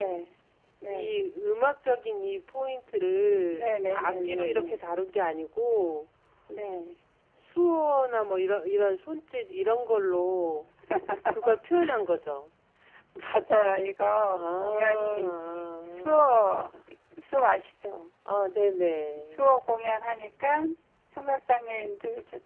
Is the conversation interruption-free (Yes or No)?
No